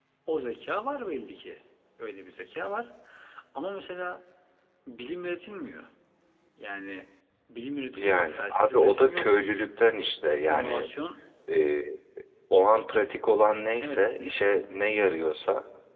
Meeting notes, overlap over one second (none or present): present